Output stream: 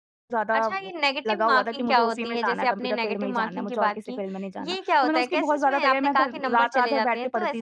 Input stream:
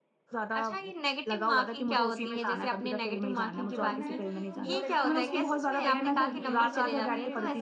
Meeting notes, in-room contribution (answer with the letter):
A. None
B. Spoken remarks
B